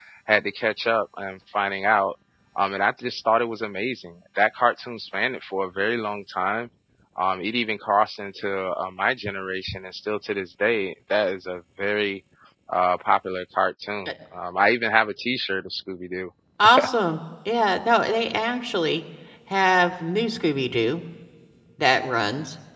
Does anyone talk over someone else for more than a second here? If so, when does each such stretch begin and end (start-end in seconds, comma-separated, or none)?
none